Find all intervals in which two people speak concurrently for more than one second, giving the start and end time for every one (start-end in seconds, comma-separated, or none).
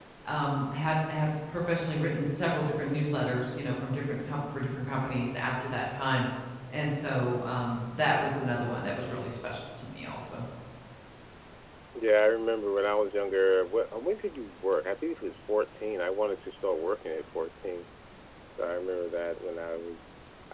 none